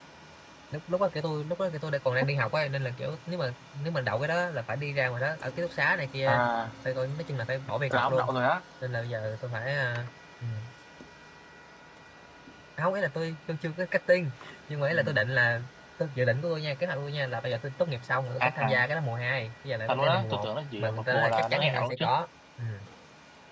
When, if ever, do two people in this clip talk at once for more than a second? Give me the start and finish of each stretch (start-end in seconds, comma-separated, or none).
19.9-22.0